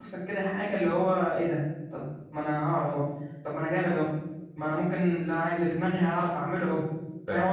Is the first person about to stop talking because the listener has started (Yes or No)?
Yes